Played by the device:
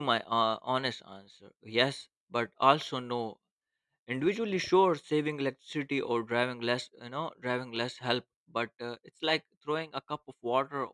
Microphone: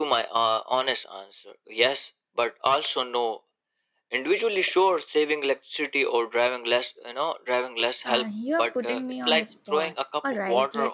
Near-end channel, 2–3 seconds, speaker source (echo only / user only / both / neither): echo only